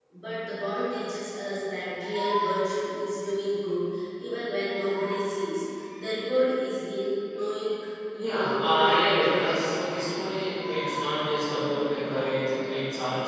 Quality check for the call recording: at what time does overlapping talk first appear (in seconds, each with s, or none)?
8.2 s